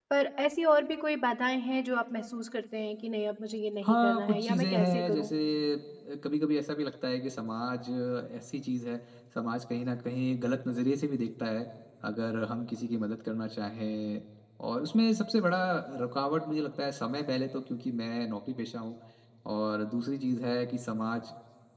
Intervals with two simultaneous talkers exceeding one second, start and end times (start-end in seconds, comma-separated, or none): 3.8-5.3